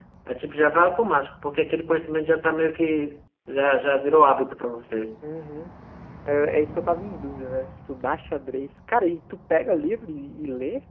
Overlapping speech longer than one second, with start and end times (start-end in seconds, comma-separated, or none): none